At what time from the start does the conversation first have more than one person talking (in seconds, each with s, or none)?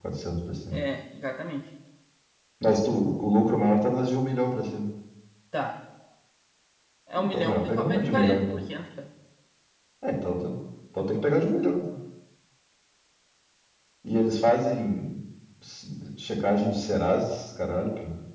7.1 s